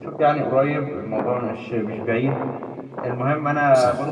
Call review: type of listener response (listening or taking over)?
listening